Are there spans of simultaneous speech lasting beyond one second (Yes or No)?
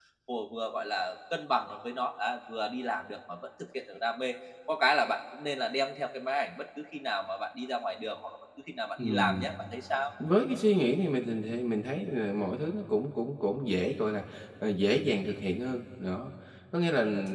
No